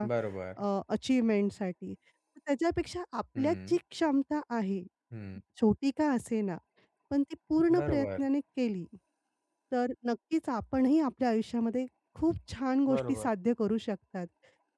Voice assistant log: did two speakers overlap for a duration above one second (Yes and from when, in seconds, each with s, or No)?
No